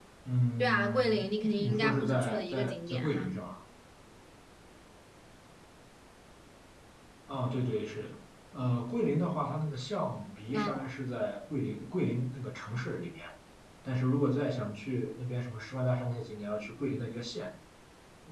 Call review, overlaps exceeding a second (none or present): present